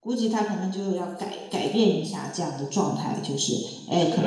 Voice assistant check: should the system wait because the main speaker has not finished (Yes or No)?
Yes